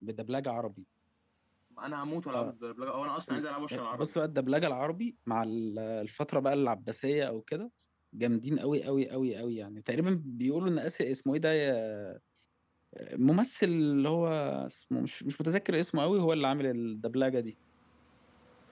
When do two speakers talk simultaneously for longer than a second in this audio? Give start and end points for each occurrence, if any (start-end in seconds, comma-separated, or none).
none